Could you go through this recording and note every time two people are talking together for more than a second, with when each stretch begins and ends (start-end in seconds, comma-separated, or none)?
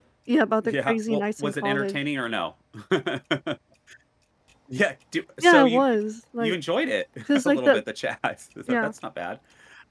0.6-2.0